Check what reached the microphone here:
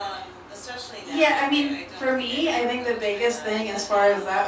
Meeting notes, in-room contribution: none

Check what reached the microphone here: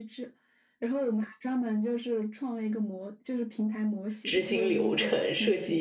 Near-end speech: present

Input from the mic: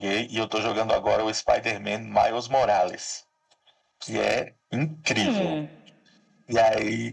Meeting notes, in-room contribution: present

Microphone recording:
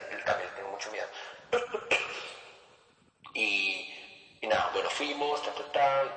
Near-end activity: none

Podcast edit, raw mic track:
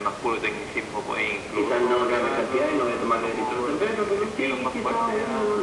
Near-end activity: none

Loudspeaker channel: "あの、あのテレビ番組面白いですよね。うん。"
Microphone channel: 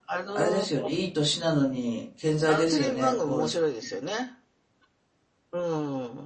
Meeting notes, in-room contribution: present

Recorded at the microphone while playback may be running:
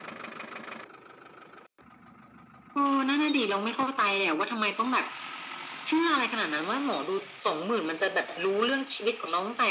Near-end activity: none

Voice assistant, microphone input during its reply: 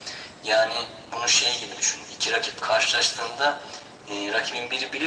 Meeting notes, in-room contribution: none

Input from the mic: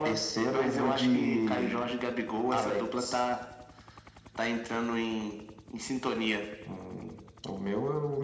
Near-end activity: none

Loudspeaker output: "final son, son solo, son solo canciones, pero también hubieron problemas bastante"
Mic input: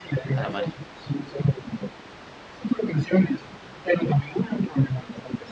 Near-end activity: present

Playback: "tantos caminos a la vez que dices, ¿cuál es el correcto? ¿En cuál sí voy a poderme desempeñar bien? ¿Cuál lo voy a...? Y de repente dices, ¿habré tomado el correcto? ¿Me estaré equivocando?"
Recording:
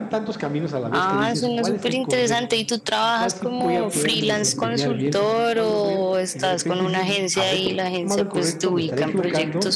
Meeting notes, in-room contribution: present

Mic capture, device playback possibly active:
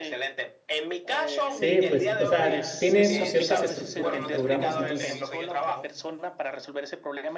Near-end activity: present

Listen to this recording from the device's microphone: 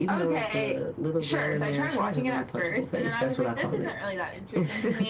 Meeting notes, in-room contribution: none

